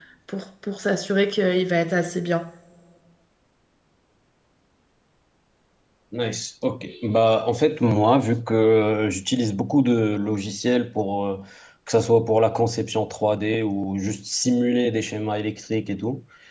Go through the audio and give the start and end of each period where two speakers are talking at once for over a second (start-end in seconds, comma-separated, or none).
none